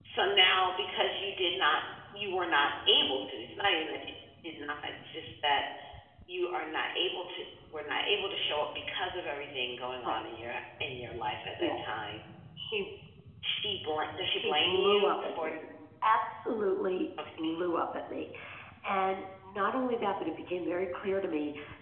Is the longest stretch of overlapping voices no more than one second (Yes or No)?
No